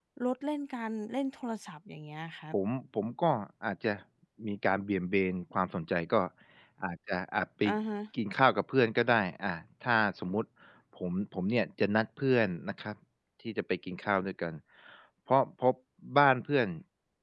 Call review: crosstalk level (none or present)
none